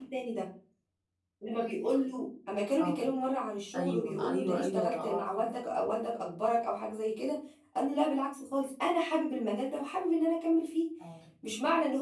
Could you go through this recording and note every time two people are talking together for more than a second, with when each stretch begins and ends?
3.7-5.5

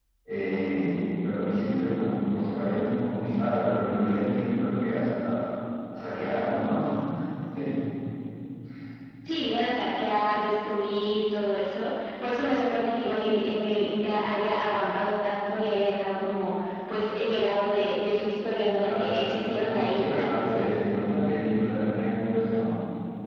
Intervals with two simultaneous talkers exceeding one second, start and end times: 18.8-20.7

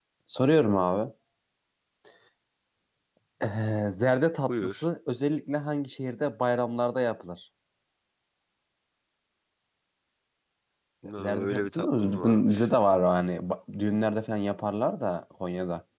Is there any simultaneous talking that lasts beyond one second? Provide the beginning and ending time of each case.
11.2-12.6

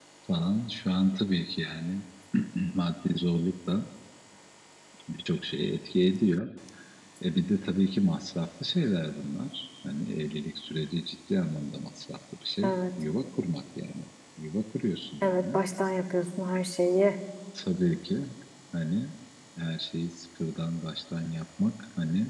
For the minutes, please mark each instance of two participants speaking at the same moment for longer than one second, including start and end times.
none

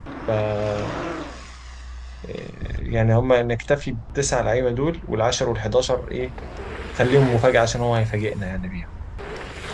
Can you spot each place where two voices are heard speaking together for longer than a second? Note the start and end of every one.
none

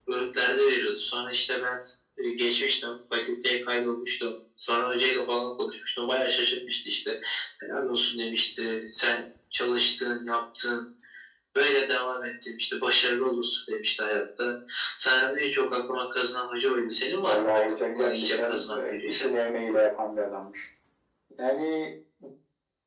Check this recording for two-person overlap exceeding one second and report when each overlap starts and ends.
17.2-19.3

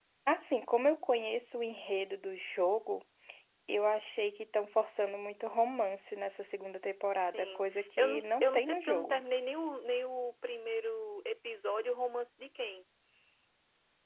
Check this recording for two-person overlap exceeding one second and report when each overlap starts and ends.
7.2-9.2

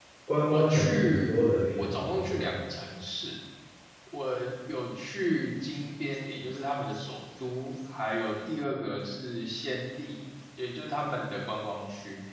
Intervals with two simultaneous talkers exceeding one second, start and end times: 0.5-2.6

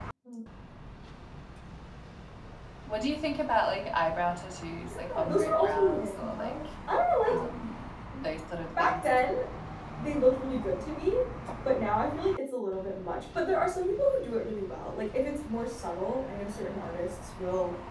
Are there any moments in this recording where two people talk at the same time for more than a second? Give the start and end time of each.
4.9-6.6

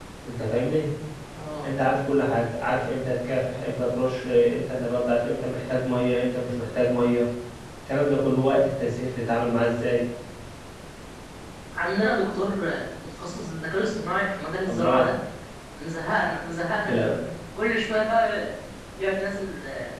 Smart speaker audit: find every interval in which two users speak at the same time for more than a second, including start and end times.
none

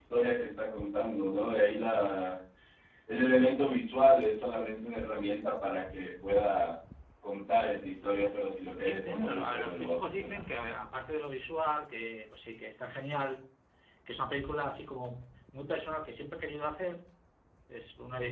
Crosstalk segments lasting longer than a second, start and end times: 8.8-10.4

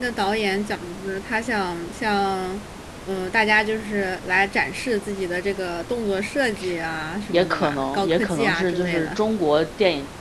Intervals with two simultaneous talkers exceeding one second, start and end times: 7.3-9.2

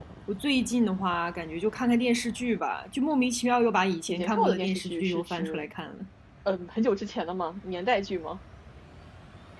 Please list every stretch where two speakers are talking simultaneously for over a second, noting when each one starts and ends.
4.1-5.7

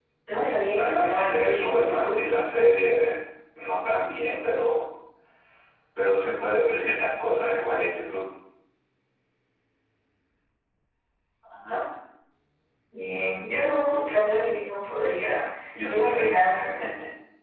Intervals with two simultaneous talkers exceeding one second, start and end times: 0.8-2.2

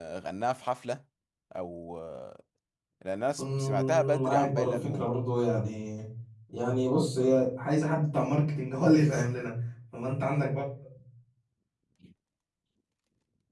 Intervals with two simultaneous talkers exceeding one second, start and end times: 3.4-5.1

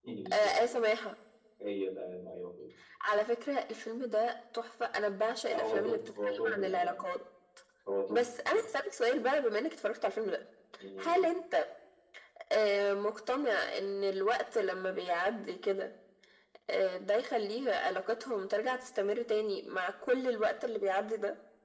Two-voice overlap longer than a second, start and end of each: 5.5-6.9

